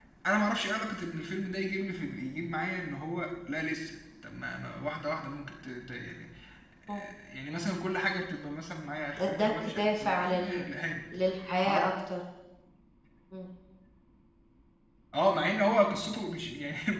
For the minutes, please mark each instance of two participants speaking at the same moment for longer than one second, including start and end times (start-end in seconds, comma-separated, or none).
9.2-10.6